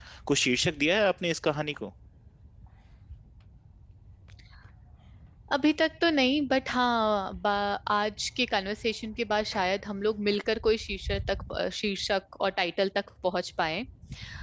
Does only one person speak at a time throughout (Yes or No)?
Yes